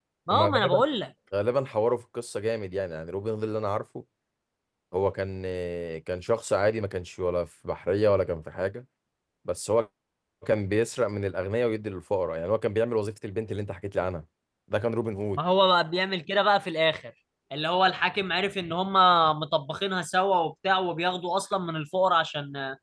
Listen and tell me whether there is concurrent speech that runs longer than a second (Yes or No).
No